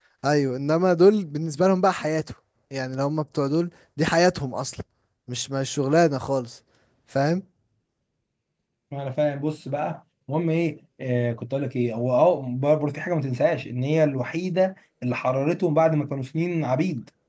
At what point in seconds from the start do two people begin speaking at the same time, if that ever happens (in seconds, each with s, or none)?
none